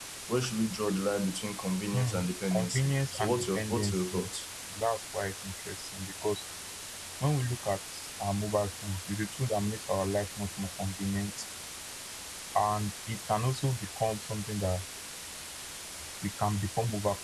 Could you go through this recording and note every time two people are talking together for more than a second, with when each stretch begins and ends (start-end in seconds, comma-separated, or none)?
2.5-4.2